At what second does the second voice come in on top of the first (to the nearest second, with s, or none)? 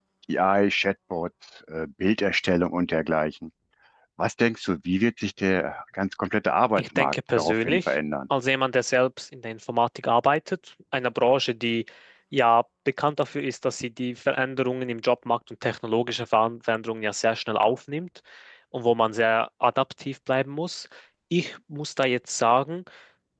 7 s